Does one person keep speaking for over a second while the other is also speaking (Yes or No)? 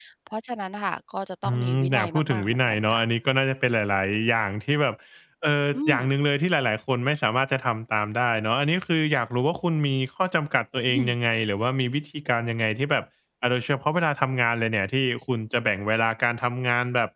Yes